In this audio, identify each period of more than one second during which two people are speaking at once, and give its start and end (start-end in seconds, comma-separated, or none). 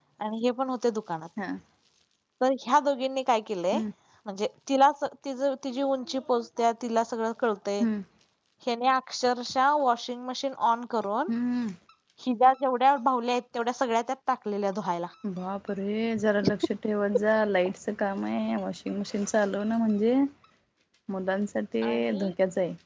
none